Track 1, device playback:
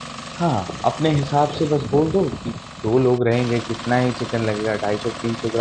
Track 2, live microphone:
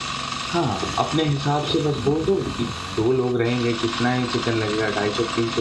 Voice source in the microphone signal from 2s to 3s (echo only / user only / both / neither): echo only